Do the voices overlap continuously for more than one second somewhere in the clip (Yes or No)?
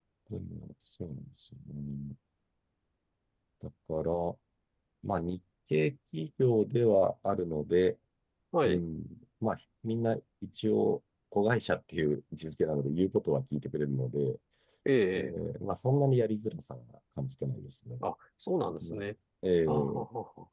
No